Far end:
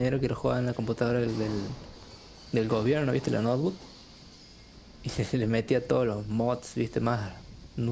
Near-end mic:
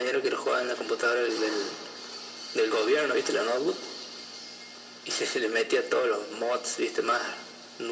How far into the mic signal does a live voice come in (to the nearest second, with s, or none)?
none